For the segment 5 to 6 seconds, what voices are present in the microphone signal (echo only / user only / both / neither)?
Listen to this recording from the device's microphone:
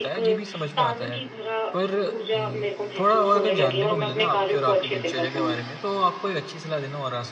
both